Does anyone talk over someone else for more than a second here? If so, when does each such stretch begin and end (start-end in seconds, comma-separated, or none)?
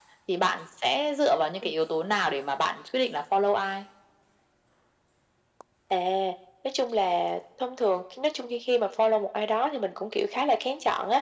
none